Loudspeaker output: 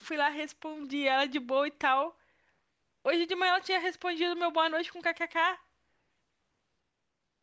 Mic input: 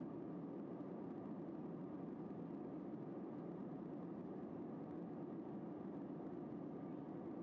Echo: none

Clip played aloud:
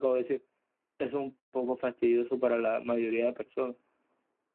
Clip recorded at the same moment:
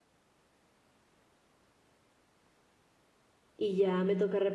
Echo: none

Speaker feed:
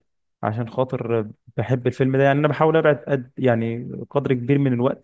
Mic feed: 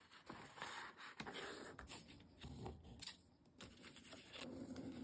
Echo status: none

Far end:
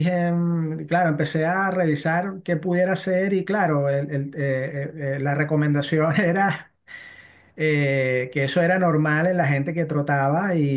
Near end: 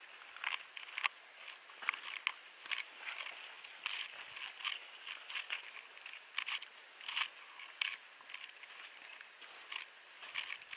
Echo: none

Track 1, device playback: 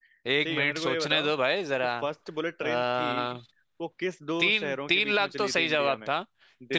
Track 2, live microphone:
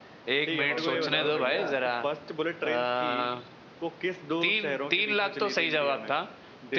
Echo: present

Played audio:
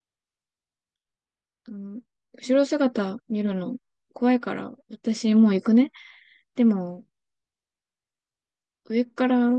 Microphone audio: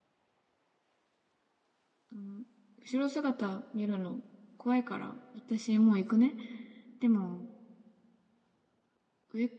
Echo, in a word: present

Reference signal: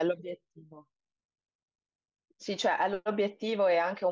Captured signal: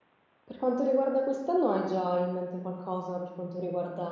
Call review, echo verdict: none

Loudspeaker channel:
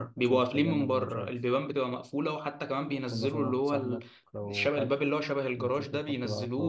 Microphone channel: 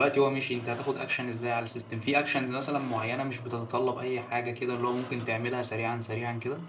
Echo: none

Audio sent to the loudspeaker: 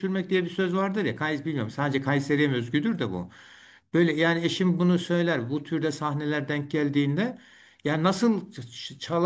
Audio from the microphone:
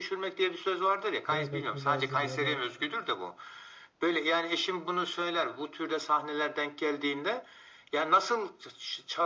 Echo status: present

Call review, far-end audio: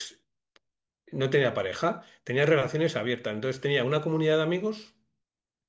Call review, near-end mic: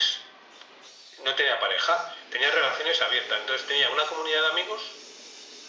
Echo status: present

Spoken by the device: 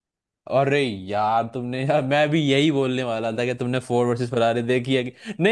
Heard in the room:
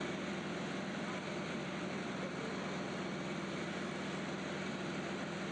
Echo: none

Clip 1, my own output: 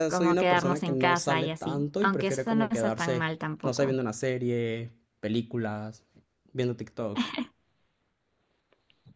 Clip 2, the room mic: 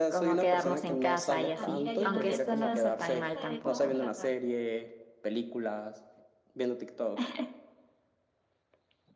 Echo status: present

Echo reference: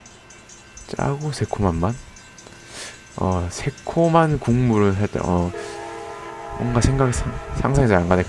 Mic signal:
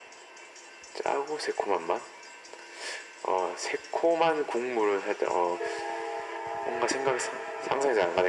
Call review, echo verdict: present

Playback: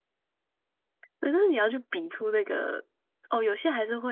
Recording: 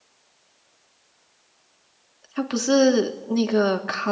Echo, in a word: none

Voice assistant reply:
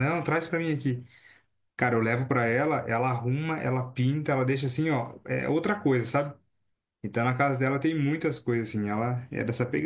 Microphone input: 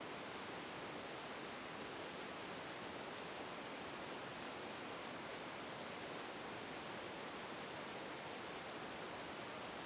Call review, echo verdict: none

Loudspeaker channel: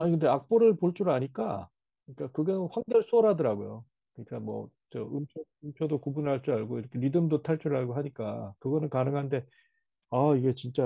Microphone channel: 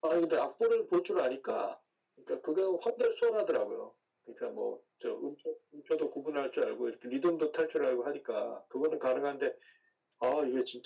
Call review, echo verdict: present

